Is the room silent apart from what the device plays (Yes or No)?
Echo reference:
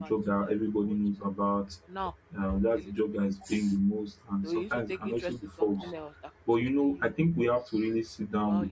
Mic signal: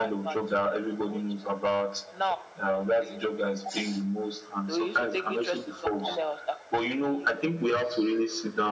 Yes